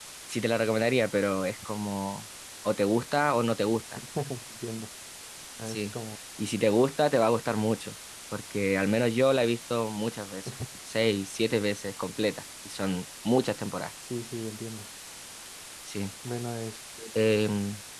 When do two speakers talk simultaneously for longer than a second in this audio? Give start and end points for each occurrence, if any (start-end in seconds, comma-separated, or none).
none